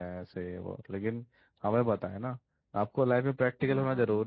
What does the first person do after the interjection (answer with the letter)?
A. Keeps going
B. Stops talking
A